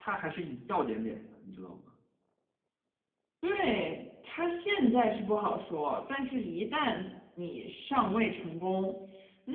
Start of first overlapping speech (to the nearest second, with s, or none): none